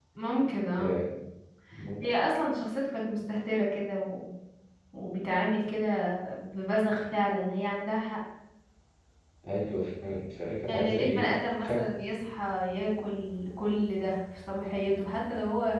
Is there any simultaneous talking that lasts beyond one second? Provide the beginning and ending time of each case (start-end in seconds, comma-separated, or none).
10.7-11.9